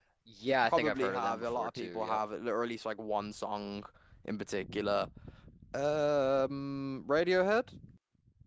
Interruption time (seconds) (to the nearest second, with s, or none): 1 s